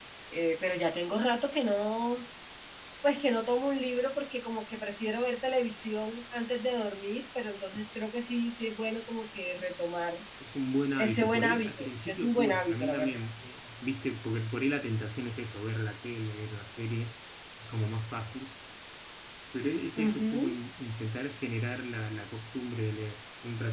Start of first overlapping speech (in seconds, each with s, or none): 11.0 s